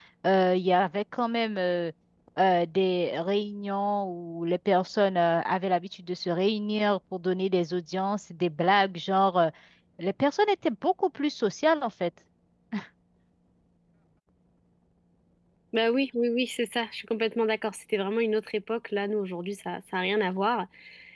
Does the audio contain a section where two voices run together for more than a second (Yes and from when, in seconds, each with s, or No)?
No